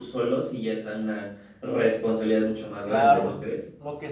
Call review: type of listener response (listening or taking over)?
taking over